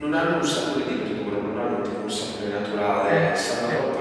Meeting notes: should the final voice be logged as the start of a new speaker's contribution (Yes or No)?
No